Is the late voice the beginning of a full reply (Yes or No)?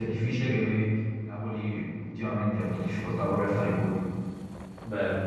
Yes